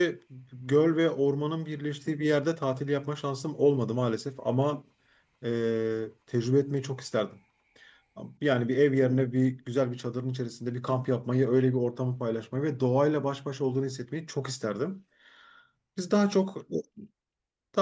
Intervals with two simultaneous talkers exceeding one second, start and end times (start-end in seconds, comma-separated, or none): none